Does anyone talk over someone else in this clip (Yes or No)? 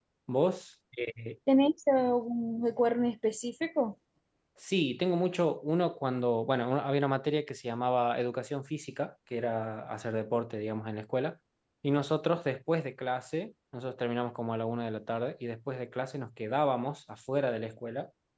No